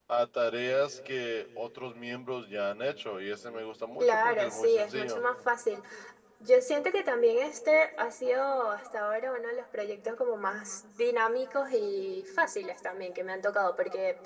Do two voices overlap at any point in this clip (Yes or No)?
Yes